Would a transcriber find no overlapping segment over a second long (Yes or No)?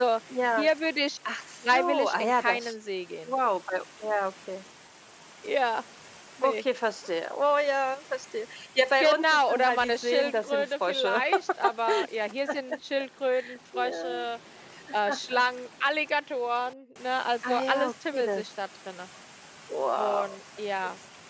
No